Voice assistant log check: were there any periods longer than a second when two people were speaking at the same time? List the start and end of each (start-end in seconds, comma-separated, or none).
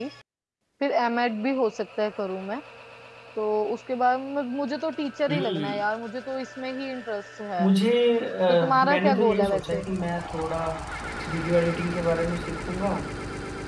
8.5-9.8